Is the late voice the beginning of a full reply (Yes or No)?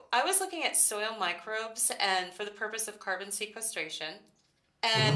No